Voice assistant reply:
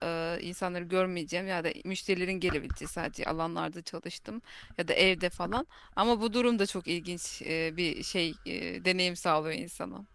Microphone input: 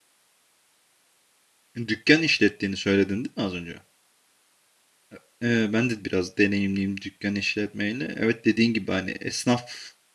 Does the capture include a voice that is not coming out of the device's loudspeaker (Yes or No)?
Yes